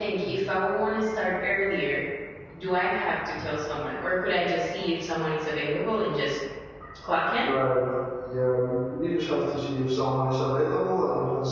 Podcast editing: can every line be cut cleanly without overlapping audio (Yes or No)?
Yes